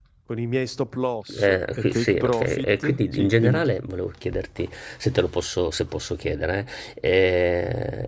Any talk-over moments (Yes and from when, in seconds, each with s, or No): Yes, from 1.3 s